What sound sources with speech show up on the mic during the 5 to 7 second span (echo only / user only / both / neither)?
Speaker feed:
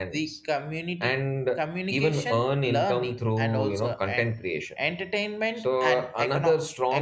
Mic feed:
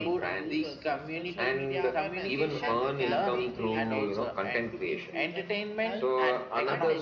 both